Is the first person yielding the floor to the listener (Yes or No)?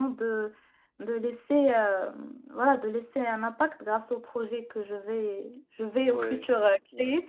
No